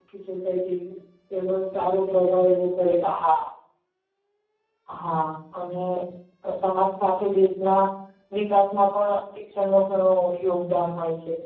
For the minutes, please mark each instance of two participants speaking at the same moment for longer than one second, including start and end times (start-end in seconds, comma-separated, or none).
none